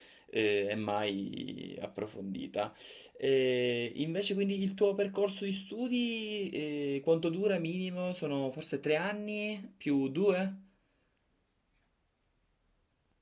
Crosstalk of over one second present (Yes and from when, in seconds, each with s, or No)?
No